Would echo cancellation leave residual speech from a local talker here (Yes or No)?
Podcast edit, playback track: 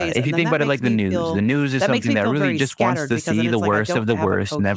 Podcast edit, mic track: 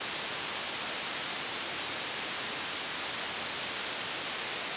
No